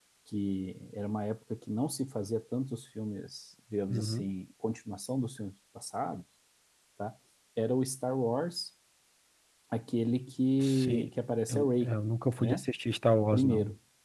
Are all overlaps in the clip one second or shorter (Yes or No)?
Yes